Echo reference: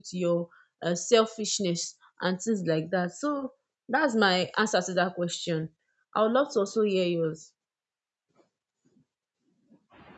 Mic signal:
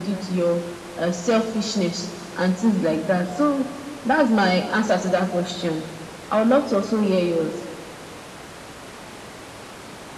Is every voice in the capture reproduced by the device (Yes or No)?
Yes